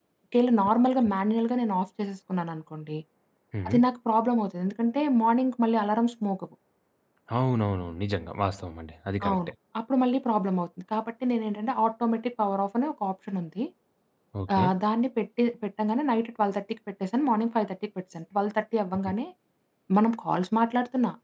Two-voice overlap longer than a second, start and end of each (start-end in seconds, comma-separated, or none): none